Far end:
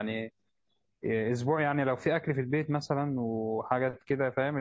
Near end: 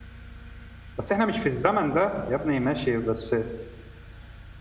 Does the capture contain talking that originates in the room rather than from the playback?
Yes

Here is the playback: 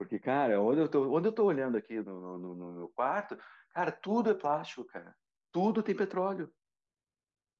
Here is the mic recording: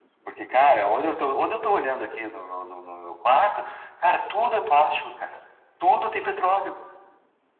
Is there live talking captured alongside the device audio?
No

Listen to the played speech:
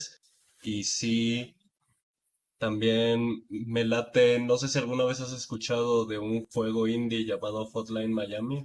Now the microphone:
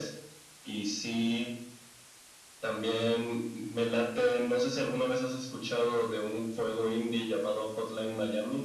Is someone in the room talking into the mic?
No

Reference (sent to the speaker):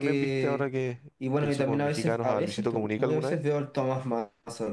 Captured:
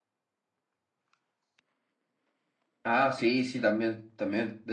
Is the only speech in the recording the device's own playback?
No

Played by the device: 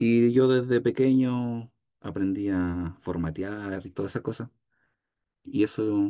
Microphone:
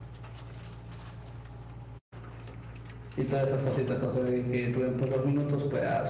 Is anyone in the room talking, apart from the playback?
Yes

